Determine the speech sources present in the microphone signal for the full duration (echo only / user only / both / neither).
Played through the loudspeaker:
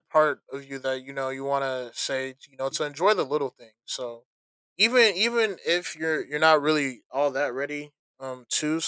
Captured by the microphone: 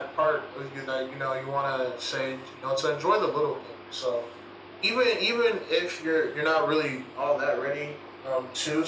echo only